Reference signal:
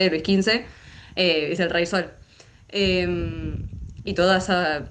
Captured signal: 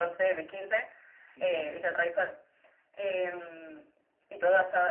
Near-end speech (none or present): present